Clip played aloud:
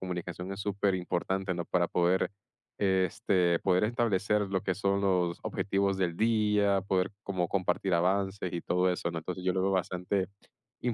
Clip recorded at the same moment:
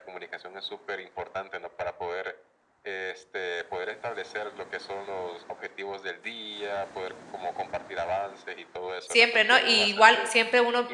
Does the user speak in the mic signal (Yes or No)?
Yes